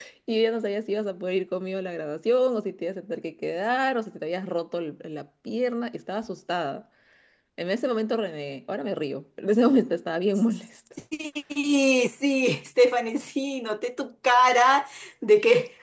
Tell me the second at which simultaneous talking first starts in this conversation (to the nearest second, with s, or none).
none